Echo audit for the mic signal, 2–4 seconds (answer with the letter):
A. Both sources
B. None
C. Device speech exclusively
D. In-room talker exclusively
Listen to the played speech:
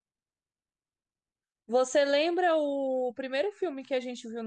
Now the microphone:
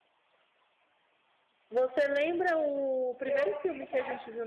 A